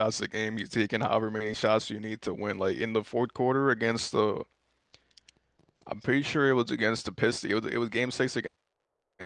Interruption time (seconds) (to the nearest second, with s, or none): none